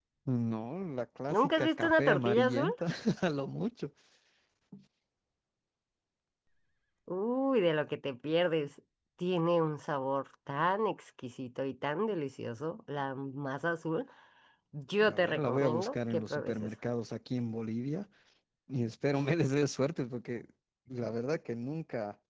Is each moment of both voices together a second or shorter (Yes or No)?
No